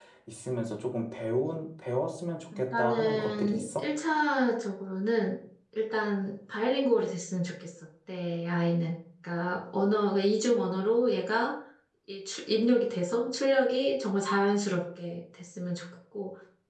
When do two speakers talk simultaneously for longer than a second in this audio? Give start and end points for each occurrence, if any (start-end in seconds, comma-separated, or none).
2.6-3.8